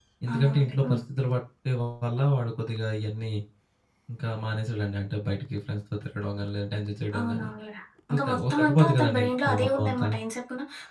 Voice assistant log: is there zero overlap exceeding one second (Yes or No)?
No